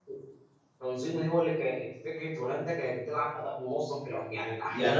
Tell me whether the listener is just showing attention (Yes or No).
No